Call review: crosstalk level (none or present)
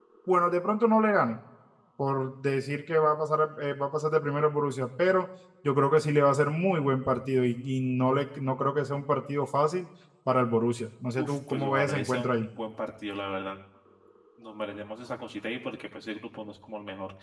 present